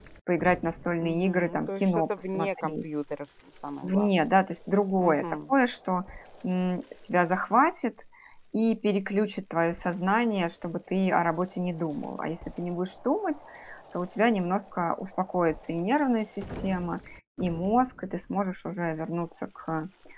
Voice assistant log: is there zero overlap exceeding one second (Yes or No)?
No